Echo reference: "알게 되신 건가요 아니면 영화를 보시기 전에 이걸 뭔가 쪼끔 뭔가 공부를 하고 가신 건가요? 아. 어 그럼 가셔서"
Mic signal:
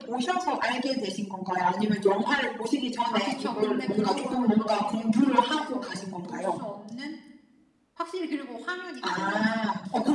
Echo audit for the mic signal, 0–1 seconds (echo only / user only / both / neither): echo only